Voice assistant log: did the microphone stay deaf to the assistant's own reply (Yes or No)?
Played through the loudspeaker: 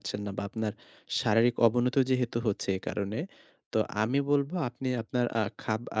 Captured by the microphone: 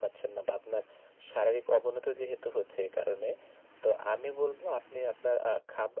No